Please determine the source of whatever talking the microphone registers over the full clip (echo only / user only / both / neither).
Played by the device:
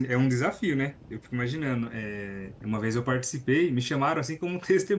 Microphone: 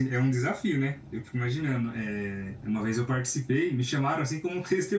echo only